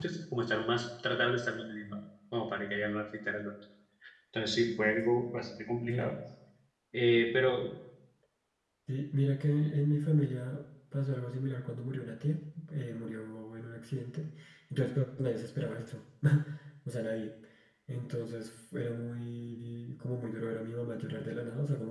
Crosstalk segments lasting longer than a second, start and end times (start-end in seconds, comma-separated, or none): none